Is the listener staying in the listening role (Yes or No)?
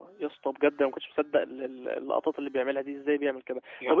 Yes